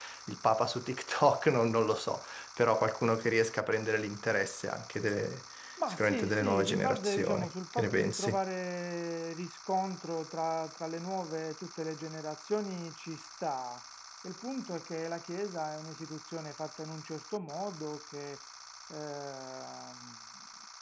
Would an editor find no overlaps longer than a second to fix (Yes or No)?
No